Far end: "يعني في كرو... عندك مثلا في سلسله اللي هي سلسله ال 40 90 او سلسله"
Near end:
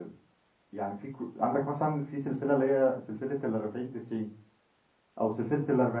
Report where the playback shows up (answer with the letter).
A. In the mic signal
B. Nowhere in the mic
A